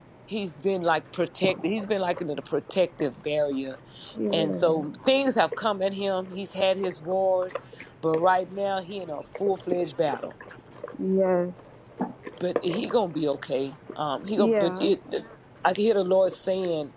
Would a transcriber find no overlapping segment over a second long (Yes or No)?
Yes